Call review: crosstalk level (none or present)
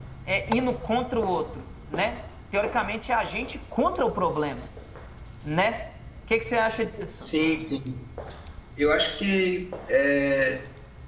none